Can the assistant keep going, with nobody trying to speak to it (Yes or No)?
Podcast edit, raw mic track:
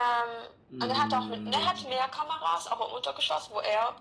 No